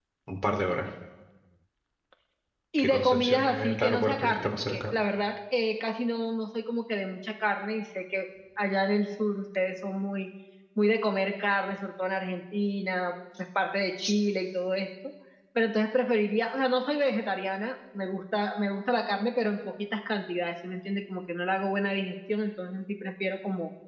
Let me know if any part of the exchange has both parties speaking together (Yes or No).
Yes